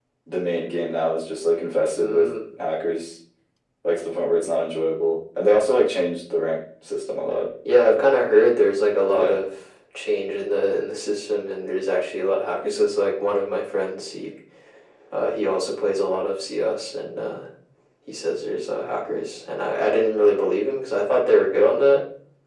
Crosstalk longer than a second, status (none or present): none